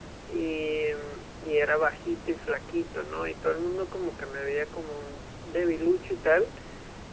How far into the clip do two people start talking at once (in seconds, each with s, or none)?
none